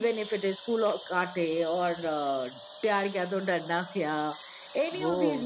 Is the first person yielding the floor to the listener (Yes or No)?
No